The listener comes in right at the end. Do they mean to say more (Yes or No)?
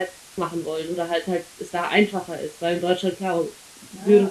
Yes